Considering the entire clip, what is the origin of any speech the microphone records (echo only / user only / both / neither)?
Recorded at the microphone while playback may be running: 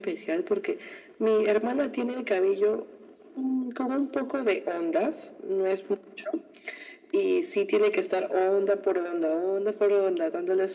echo only